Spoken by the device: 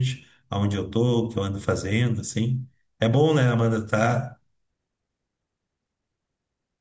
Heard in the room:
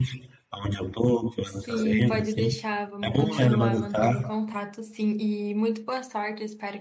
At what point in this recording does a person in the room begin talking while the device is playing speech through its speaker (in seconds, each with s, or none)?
1.4 s